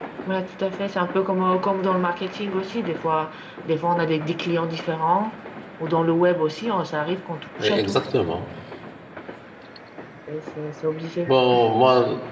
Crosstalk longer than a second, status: none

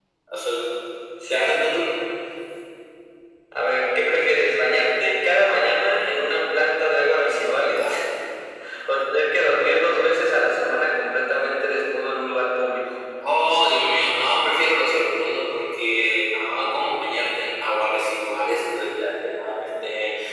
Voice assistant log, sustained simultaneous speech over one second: none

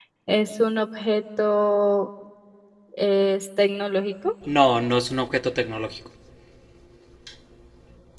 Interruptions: none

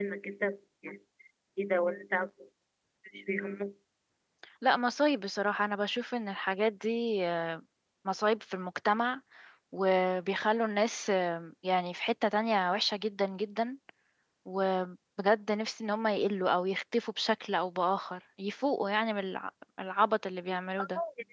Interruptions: none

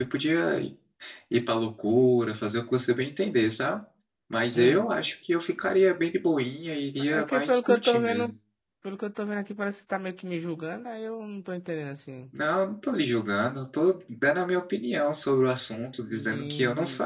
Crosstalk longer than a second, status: present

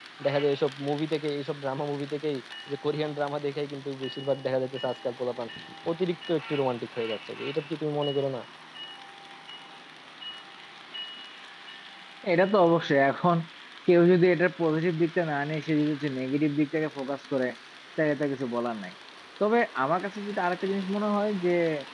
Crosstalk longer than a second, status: none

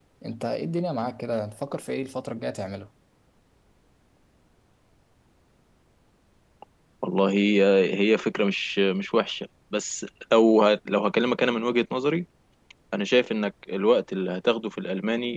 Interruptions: none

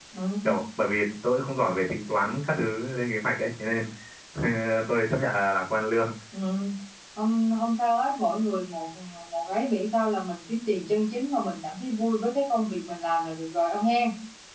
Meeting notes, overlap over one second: none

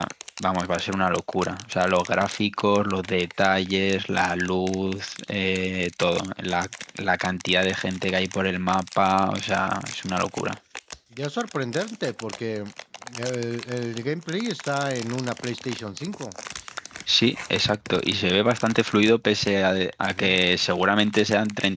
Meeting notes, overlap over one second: none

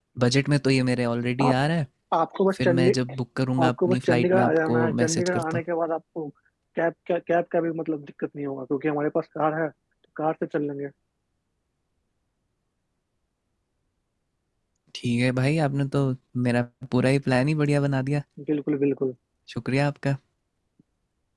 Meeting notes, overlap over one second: present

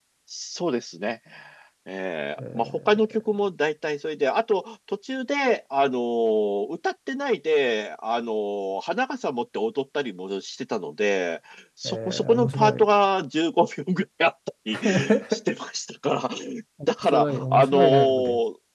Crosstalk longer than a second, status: present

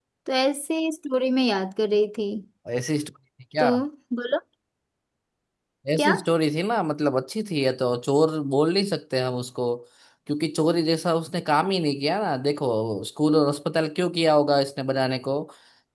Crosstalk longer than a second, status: none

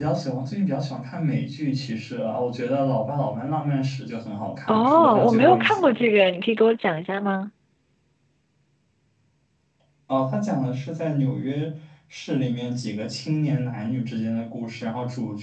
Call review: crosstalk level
present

